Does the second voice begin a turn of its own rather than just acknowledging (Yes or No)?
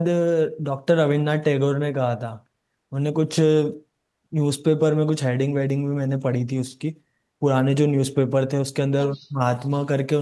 No